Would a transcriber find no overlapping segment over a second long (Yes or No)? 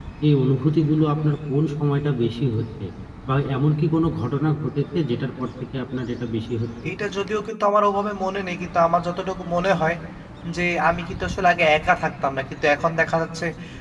Yes